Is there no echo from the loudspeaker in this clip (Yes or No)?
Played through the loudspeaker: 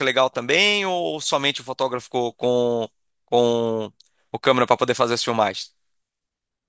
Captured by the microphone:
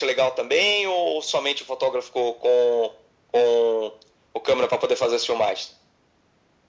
No